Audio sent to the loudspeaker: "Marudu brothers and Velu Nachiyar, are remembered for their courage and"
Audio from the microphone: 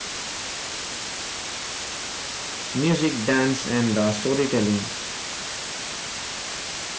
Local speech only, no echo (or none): Music, dance, and uh, storytelling